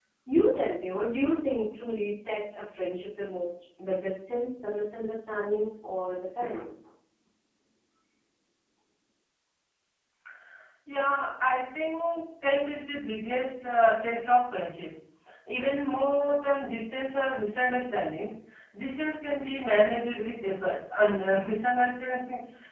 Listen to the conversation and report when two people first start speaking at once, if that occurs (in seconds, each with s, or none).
none